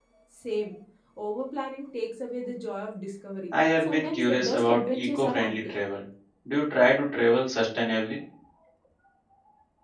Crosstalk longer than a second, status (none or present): present